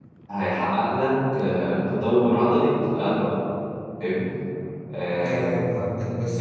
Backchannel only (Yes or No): No